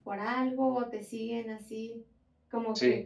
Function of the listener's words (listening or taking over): listening